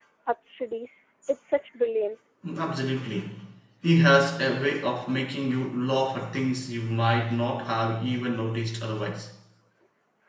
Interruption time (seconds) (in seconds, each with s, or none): none